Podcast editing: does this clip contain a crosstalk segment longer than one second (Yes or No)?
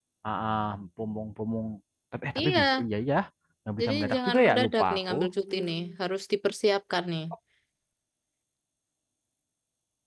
Yes